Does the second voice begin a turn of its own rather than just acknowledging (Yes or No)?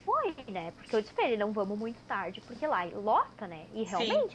No